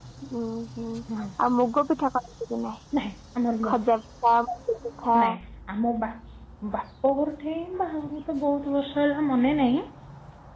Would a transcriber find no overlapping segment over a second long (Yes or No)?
Yes